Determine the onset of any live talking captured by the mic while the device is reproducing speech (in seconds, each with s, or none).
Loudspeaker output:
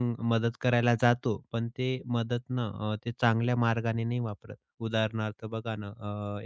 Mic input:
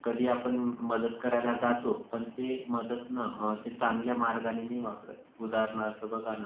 none